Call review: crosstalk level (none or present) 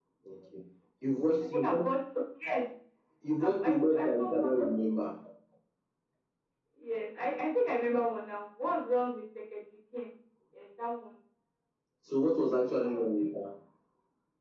present